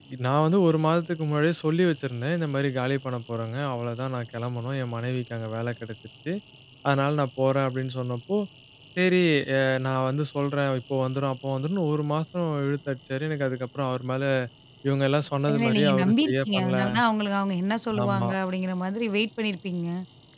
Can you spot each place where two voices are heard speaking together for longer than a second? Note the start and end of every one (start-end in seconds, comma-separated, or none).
15.5-16.8